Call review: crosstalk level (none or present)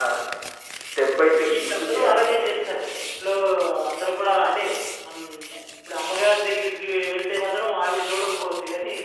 present